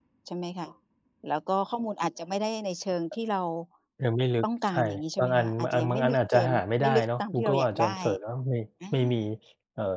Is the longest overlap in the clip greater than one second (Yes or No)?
Yes